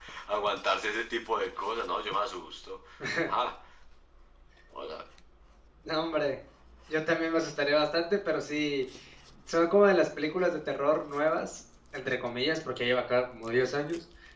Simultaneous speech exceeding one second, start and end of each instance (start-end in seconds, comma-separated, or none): none